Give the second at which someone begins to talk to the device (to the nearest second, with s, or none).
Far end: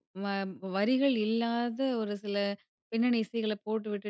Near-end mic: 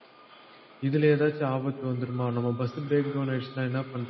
1 s